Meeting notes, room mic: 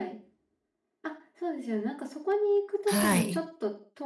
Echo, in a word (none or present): present